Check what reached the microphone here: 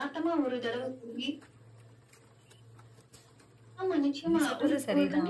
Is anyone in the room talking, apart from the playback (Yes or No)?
Yes